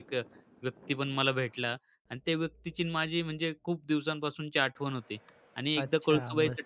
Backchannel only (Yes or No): Yes